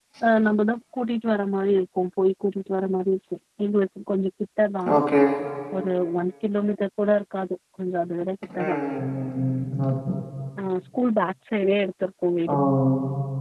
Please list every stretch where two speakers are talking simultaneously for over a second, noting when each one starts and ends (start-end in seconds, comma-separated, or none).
none